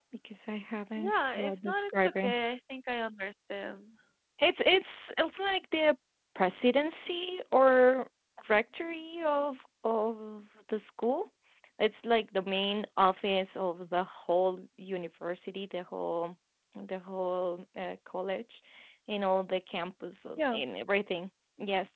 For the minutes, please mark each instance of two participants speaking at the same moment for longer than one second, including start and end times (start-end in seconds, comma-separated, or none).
1.0-2.4